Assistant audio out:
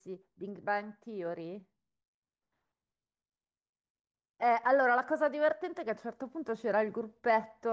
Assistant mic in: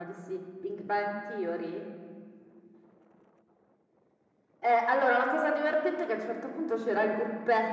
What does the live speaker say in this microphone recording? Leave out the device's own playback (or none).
none